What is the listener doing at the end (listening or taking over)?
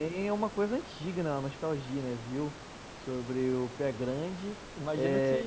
taking over